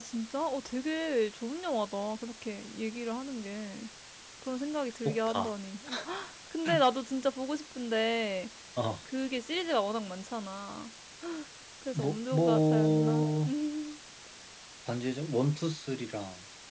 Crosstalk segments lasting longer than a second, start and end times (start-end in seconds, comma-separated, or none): 11.9-13.3